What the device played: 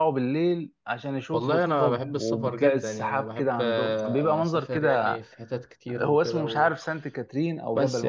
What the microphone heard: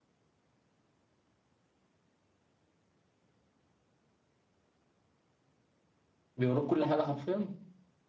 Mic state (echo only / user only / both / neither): user only